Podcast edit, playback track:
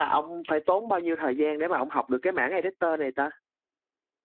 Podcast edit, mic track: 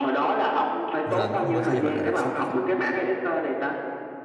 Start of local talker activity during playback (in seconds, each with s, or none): 1.0 s